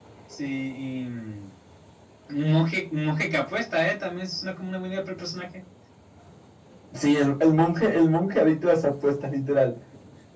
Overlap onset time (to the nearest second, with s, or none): none